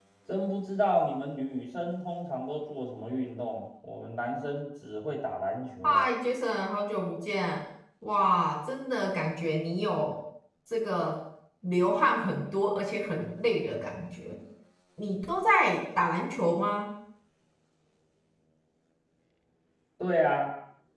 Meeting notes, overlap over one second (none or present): none